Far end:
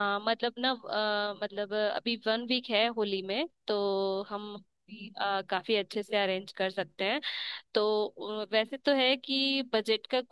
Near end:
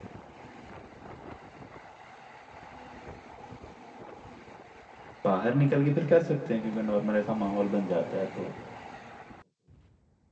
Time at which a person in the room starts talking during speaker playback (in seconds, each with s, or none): 5.2 s